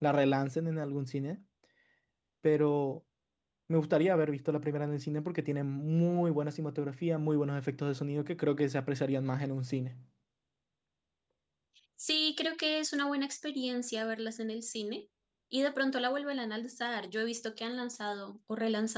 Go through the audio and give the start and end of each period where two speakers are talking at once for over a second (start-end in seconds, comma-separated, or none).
none